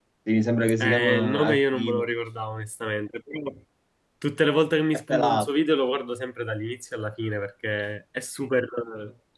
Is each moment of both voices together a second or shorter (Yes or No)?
No